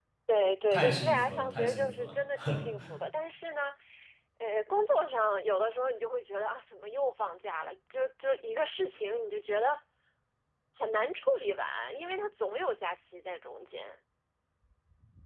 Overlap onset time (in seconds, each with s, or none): 0.7 s